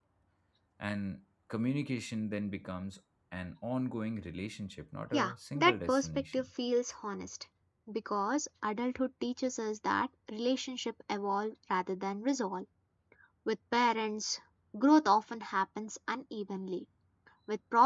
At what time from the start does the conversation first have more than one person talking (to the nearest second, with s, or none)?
5 s